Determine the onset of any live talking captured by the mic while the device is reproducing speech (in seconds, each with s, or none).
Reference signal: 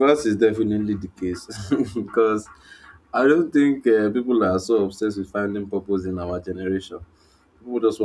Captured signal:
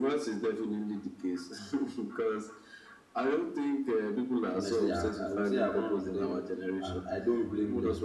4.5 s